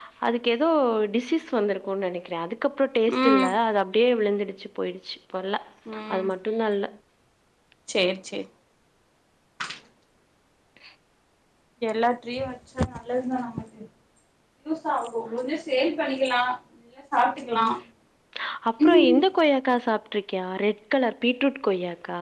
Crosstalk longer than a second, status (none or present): none